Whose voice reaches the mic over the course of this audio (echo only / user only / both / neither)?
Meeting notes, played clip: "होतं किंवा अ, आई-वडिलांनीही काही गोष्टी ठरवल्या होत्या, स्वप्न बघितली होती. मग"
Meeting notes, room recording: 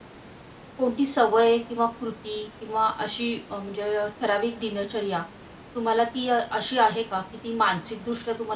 user only